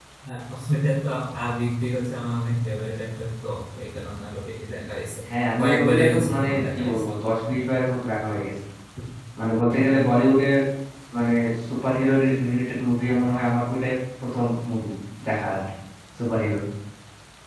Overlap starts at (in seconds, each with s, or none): 5.6 s